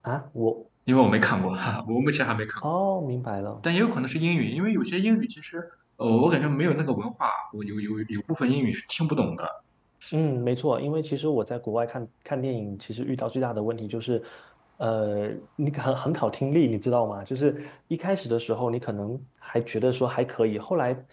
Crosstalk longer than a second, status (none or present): none